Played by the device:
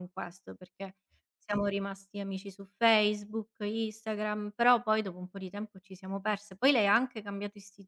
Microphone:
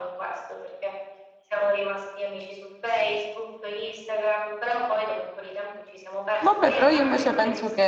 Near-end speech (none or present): present